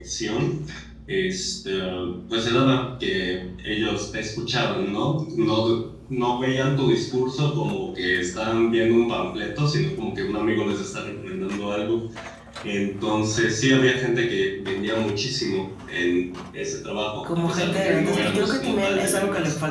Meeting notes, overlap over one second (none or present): present